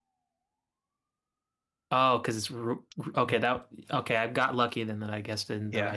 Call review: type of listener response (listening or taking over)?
taking over